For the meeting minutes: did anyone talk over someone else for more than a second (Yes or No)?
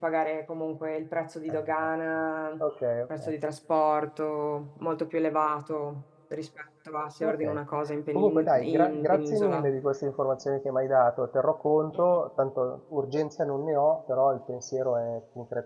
Yes